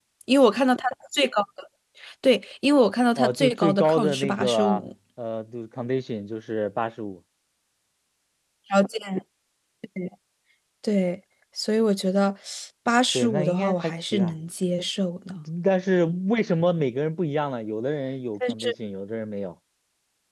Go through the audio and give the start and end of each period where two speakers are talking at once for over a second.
3.2-4.8, 13.1-14.3

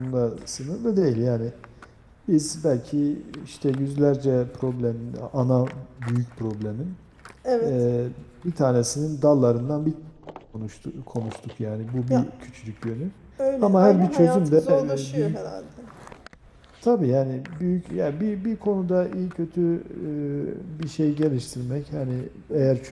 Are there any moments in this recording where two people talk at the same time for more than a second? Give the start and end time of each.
13.6-15.4

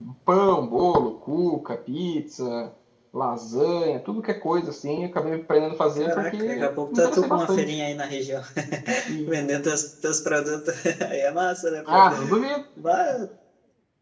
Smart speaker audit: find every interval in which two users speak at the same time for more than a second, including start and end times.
6.0-7.7

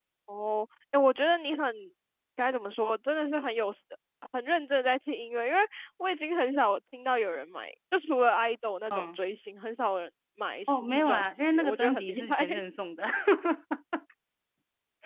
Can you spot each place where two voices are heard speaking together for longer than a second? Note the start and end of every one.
10.7-12.4

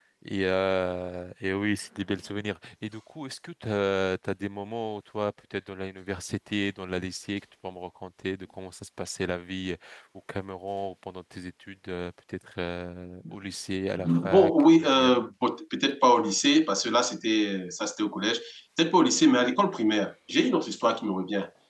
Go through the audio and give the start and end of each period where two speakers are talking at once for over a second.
14.0-15.2

